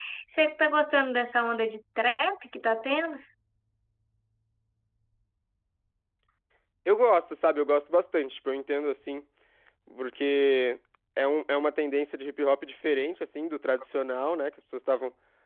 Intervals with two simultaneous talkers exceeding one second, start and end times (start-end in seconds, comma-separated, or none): none